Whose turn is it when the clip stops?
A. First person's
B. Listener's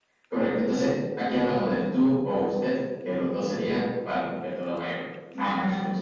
A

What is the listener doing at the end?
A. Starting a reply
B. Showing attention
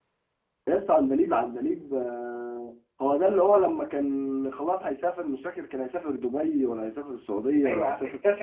A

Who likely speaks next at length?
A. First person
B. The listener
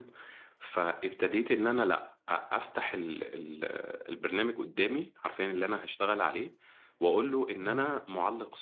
A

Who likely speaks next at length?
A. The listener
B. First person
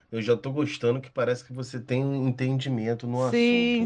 A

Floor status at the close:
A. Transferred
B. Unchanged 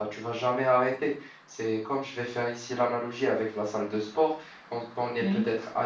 B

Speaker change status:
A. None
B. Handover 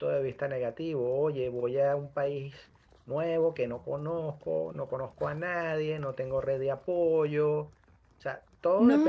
B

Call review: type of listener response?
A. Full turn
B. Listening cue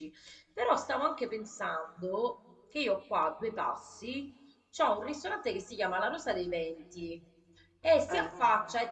B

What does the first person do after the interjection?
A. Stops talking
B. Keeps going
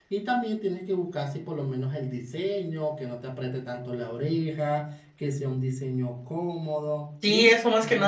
A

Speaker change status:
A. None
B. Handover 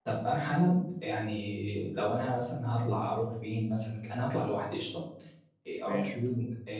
A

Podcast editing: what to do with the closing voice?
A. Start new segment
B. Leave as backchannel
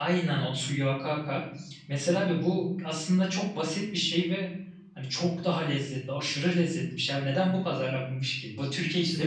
A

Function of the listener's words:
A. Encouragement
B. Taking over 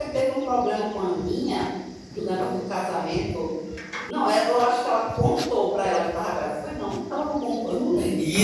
B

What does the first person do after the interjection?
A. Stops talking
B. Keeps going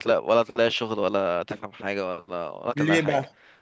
B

